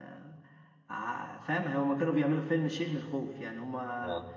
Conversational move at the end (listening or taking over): listening